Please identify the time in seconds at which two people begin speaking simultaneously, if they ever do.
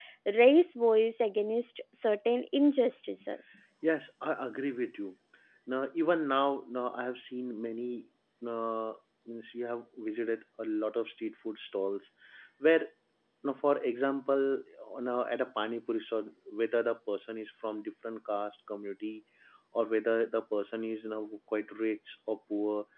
none

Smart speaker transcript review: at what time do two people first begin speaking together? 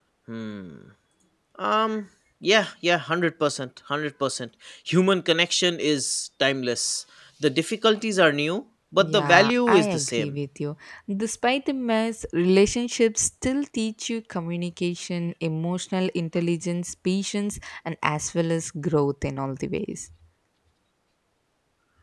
9 s

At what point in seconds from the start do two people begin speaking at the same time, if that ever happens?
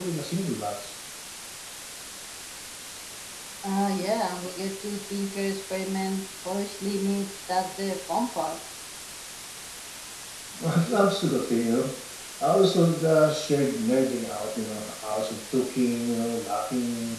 none

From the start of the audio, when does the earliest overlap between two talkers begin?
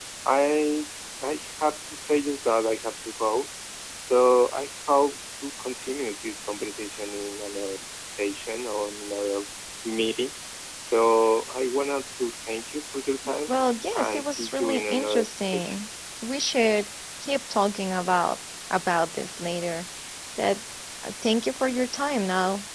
14 s

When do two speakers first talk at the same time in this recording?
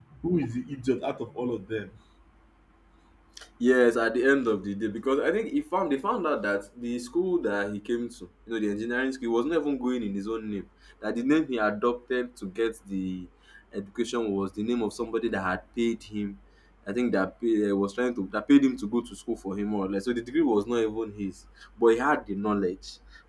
none

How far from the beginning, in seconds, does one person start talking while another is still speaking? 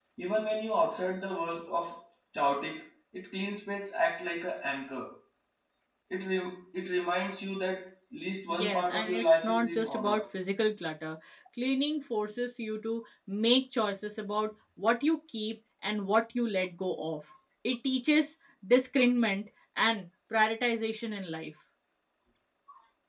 8 s

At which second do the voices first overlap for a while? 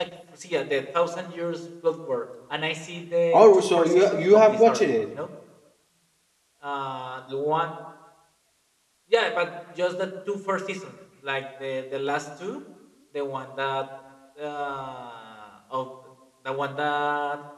3 s

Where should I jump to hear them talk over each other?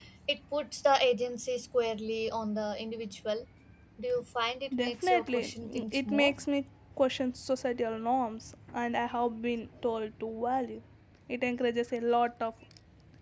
5 s

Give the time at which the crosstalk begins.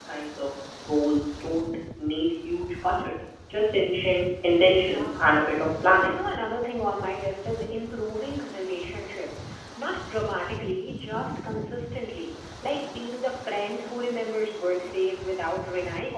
5 s

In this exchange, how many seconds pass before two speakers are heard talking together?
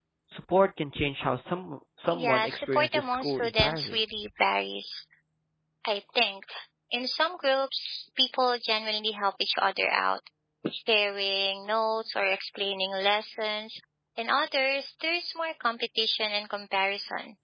2 s

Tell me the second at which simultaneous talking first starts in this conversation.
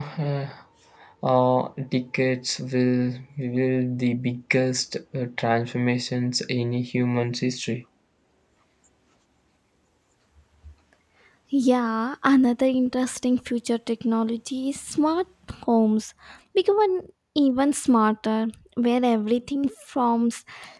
none

